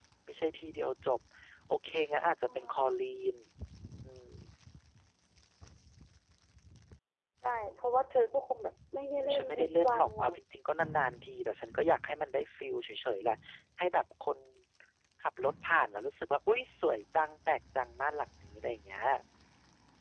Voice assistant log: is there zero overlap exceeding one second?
No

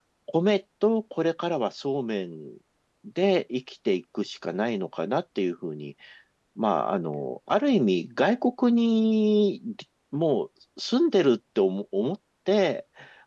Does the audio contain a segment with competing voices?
No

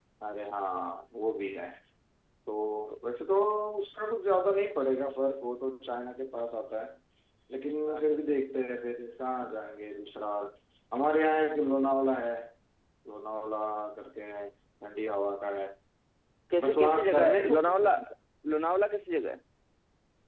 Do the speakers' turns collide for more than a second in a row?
Yes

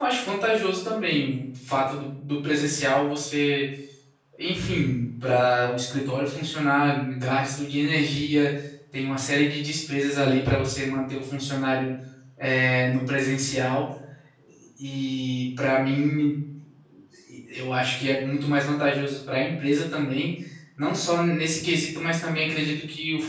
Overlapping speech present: No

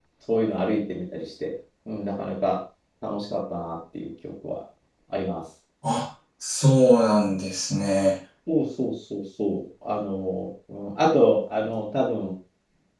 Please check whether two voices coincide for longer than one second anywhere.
No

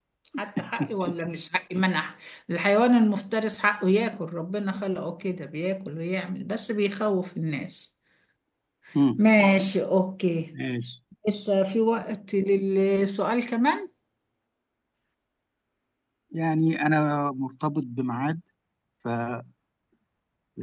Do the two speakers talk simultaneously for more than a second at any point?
No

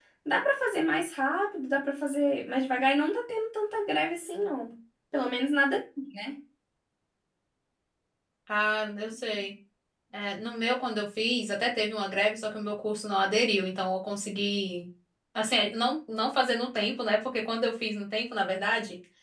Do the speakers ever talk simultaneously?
No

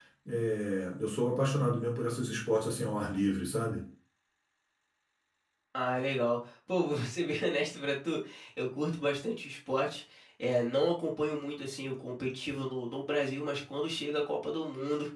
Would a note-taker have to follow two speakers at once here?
No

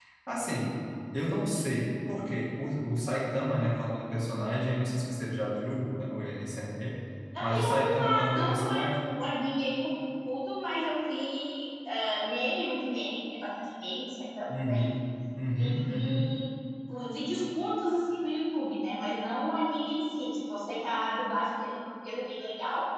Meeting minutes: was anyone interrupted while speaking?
Yes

